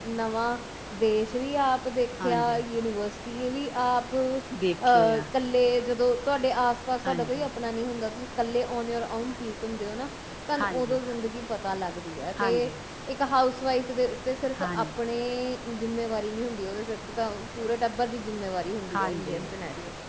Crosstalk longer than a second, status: none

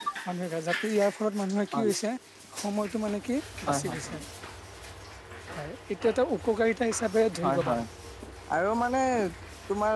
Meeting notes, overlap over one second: none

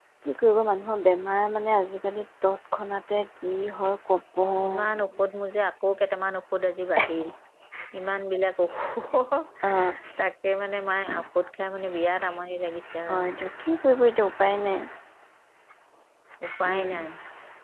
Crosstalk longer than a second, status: none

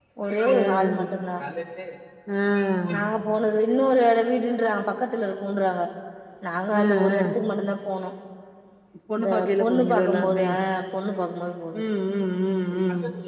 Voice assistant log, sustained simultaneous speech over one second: present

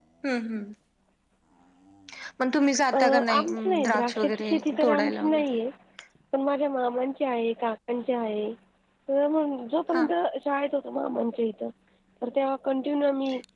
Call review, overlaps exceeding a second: present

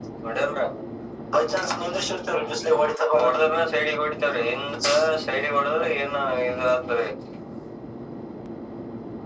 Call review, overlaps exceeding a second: none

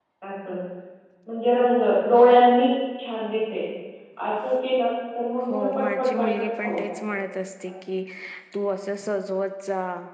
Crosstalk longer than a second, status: present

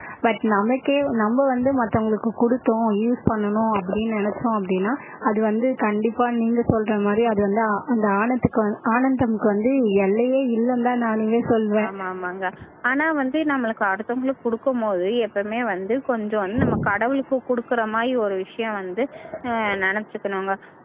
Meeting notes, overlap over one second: none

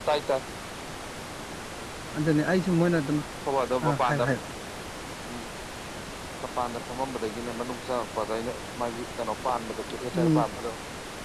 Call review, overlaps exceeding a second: none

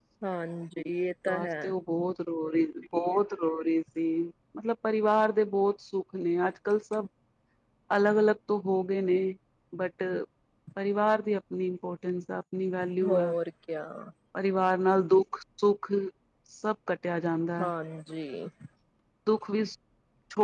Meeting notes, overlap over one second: none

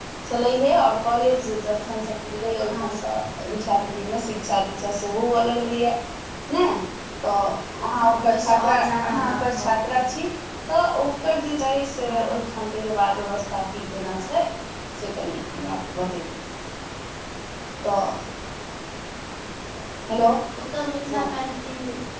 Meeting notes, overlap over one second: present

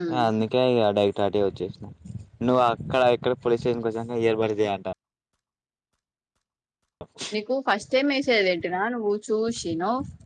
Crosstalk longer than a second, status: none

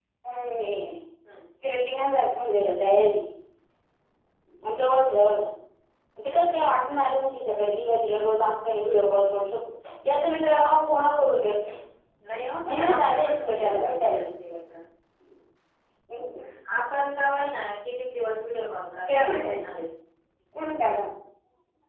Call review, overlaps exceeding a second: present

